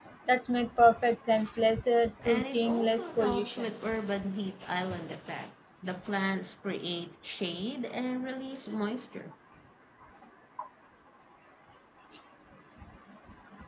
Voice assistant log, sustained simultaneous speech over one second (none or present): present